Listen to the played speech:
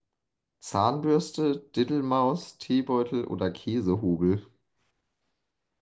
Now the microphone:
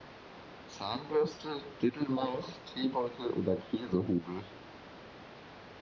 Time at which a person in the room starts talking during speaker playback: none

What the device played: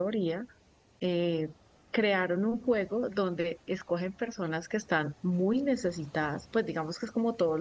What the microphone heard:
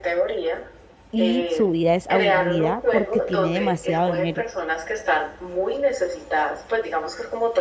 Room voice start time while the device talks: 1 s

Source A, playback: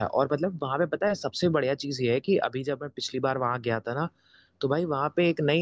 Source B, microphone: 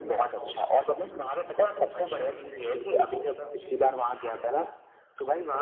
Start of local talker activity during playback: 2 s

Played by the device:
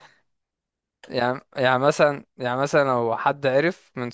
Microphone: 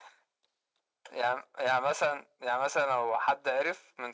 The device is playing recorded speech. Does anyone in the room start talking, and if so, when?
none

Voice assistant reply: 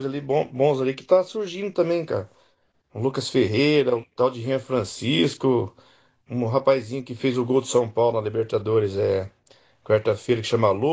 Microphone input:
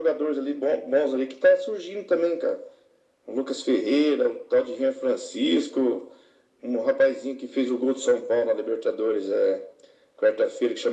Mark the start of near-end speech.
none

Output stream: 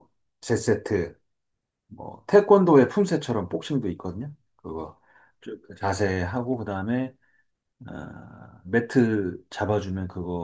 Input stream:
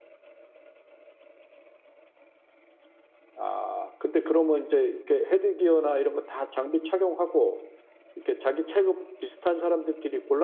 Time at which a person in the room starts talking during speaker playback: 3 s

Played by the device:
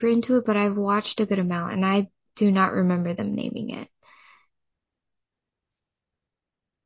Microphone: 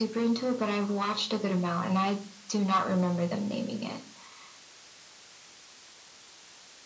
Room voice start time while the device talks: none

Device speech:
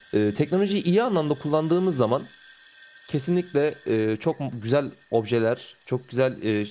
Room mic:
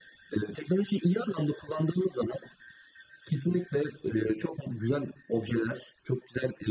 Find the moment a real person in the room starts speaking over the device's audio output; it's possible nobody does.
none

